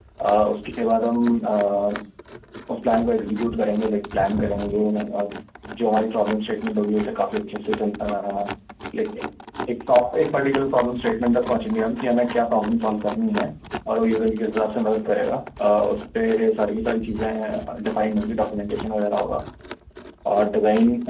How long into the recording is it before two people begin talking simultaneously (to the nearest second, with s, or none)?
none